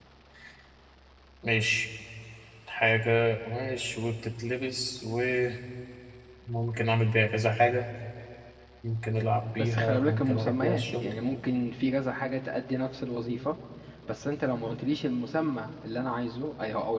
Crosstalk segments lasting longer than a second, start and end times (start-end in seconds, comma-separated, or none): 9.6-11.1